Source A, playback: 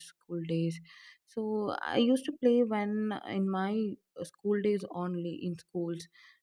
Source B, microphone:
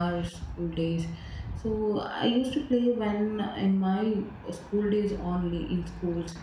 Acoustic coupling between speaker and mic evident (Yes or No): Yes